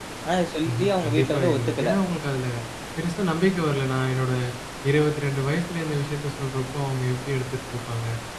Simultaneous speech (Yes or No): Yes